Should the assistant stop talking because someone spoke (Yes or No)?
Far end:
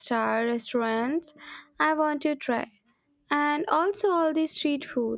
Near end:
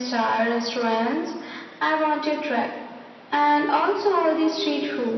Yes